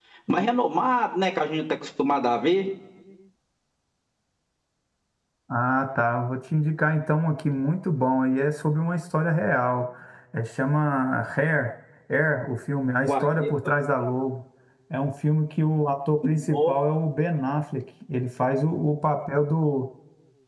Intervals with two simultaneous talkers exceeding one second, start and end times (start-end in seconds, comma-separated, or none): none